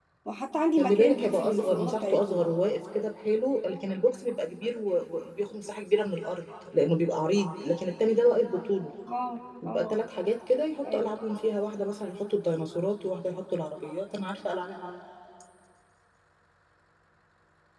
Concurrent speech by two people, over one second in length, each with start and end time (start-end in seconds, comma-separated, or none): 0.8-2.4